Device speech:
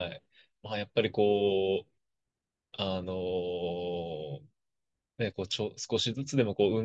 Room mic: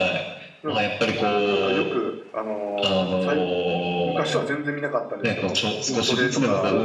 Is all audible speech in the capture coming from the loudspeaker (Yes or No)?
No